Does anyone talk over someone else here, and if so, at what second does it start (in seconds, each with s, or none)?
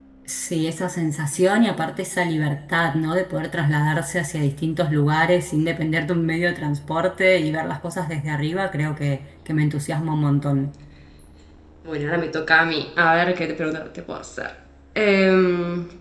none